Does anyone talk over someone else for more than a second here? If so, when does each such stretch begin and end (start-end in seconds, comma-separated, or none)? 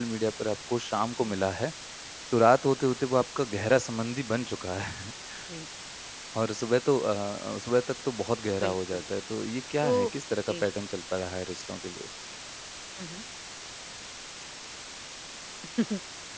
none